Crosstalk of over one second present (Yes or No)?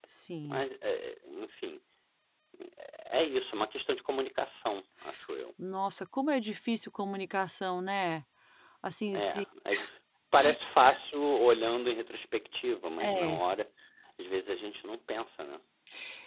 No